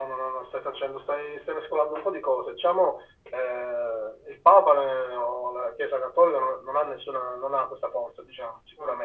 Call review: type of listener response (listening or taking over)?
listening